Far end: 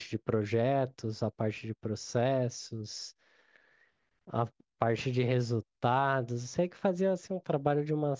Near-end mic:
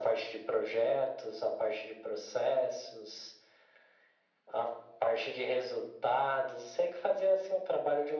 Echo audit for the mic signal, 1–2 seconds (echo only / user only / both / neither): echo only